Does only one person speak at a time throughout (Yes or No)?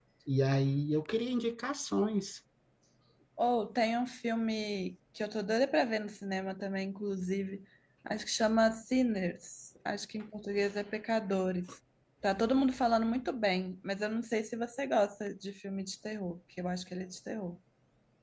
Yes